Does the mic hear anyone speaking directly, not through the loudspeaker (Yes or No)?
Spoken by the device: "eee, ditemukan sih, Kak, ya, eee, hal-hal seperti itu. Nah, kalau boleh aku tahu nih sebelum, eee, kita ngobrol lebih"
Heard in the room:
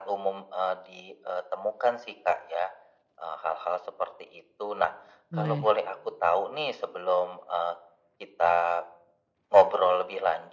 Yes